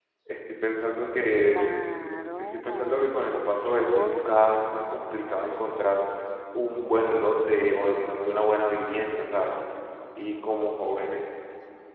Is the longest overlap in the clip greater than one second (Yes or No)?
Yes